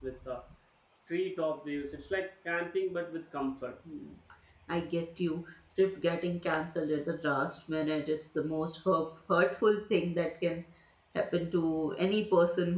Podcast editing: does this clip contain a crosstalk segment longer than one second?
No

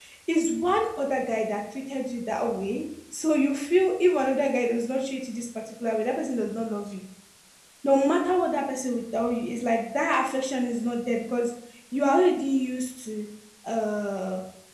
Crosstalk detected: No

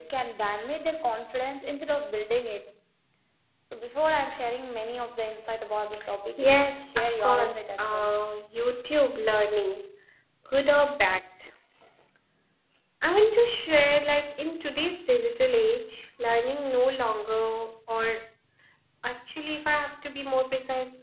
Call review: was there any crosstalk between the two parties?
Yes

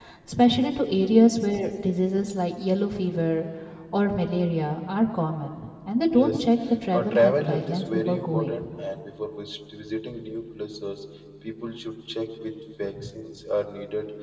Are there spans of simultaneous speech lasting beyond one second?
Yes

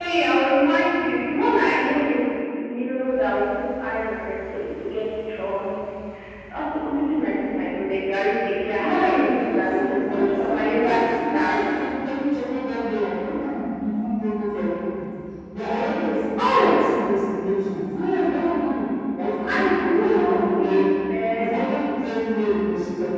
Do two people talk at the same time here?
Yes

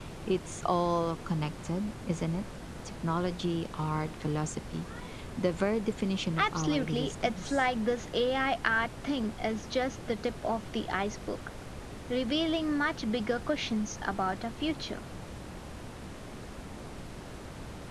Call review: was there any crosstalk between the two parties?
Yes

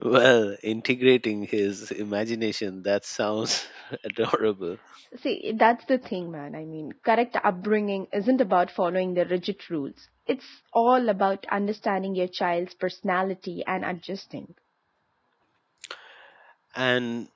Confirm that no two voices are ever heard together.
Yes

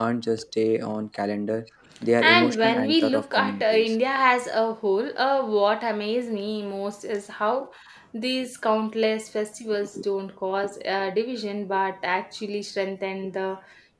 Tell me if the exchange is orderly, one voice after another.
No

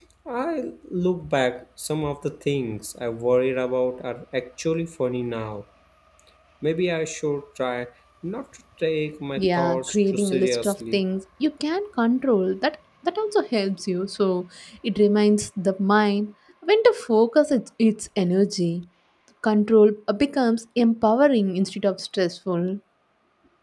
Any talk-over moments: Yes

